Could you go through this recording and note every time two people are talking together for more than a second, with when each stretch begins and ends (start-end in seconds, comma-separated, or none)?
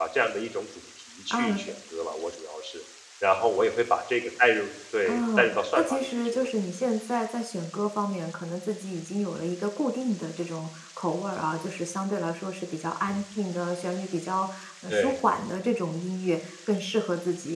5.1-6.4